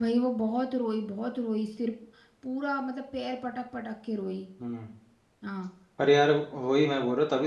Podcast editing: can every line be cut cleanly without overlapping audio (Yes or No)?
Yes